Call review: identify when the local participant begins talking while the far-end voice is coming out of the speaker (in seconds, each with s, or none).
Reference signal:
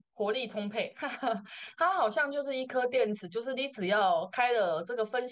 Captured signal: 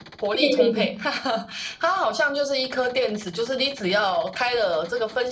0.4 s